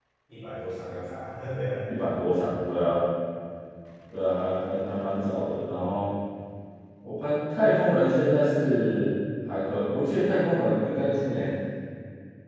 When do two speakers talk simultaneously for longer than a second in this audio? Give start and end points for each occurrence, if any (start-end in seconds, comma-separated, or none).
none